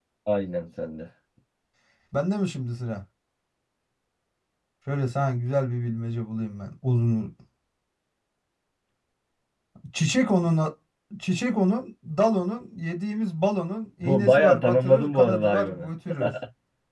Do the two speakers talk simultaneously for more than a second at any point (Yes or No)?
Yes